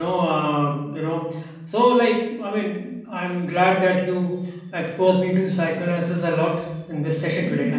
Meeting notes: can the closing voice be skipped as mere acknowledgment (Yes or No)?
Yes